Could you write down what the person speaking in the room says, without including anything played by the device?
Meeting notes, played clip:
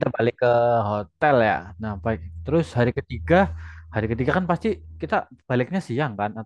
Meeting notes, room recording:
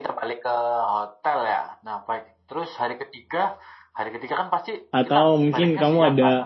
Atau mungkin kamu ada

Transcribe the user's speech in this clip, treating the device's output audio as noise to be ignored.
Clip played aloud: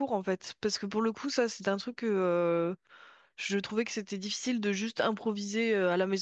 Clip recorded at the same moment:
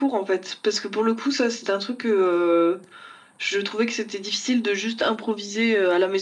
none

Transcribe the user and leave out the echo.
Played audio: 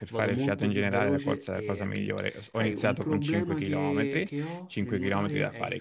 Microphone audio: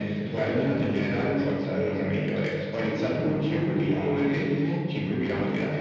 none

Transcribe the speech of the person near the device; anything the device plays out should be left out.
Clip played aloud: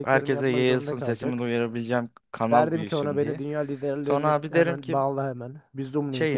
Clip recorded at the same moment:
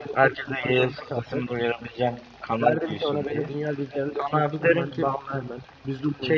none

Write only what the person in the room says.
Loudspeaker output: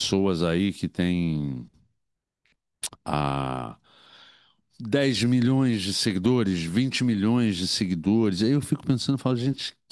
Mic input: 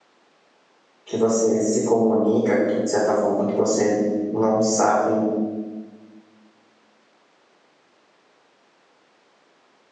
que você se comunica, de certa forma, que você não sabe

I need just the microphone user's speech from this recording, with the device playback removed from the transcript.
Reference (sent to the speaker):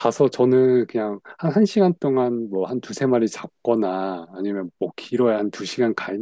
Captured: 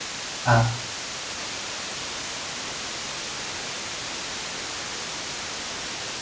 아.

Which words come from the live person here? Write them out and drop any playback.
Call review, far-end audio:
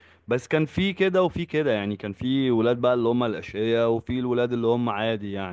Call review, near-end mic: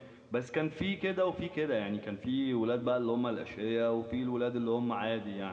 none

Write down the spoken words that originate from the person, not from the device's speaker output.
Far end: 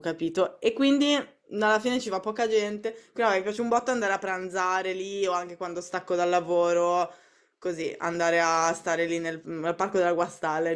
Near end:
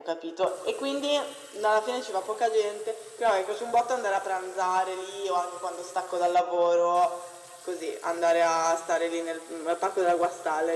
none

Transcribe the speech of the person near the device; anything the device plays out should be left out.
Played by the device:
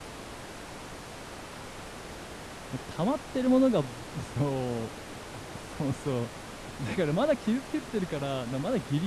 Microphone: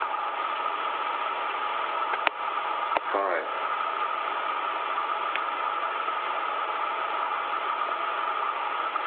は

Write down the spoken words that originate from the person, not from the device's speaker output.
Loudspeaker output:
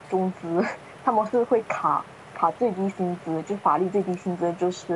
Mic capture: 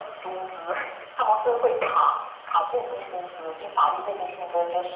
none

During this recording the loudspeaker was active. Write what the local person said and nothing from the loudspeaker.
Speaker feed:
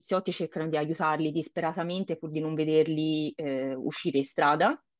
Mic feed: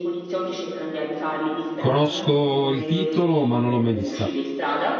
Conosco il titolo, ma non l'ho mai vista.

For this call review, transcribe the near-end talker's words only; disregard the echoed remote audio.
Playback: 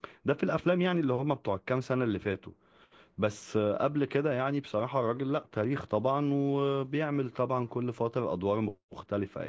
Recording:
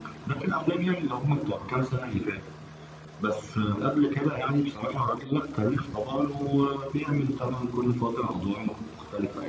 none

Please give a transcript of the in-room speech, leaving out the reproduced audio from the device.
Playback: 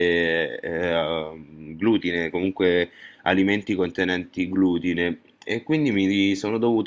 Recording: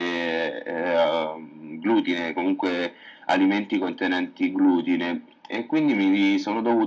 none

